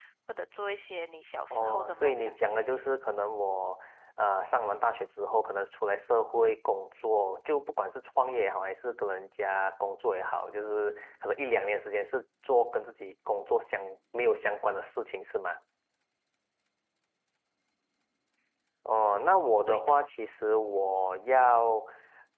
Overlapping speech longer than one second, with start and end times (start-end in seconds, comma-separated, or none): 1.5-2.8